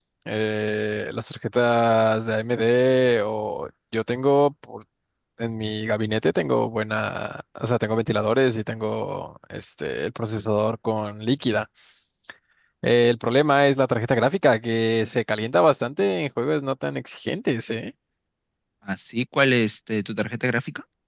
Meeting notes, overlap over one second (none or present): none